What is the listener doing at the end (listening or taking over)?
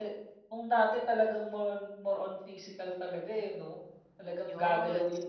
listening